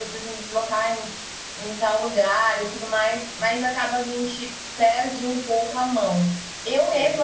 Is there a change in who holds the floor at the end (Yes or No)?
No